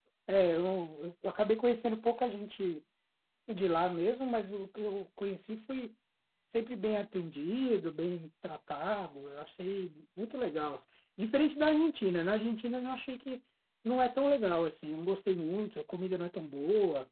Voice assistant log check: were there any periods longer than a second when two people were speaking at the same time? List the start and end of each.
none

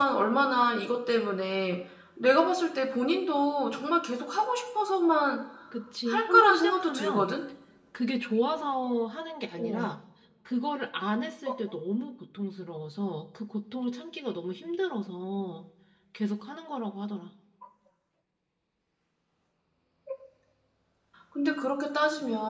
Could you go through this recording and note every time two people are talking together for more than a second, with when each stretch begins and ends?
6.1-7.3

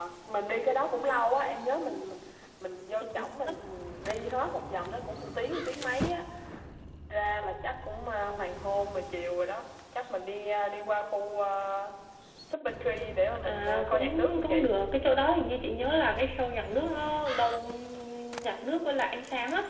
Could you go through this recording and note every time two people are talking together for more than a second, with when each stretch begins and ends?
13.4-14.8

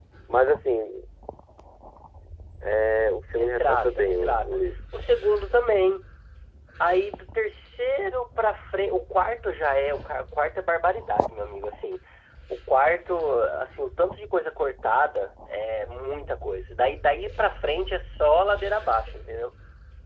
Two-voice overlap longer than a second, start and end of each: 3.3-4.6

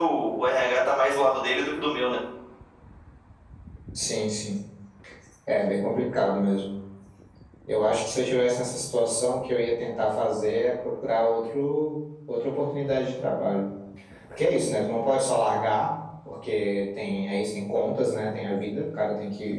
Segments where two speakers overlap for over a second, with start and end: none

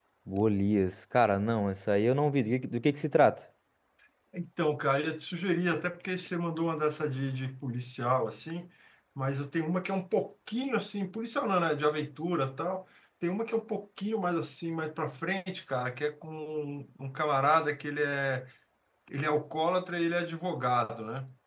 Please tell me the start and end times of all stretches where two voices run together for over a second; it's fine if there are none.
none

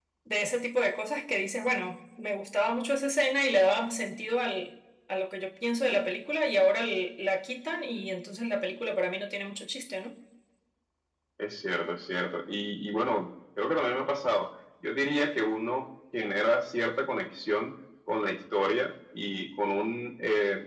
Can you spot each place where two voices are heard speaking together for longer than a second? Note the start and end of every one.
none

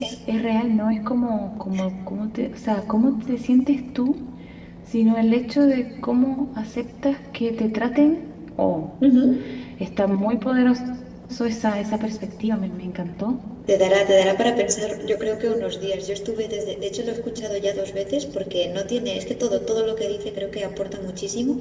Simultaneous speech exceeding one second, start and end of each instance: none

